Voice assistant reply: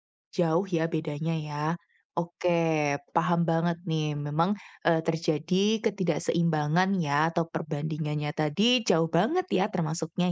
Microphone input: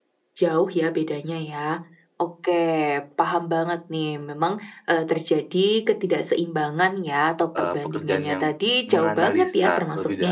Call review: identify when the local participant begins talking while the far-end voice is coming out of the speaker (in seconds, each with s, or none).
7.5 s